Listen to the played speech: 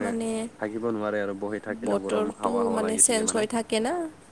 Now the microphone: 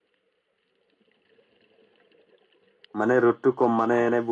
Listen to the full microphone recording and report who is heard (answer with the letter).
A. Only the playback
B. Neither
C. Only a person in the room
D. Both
C